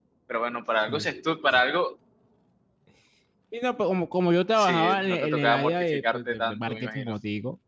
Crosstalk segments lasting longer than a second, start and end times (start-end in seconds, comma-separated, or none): 4.6-7.2